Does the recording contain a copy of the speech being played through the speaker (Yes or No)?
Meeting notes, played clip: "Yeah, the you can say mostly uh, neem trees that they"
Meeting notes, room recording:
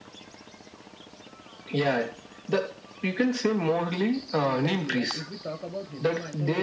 Yes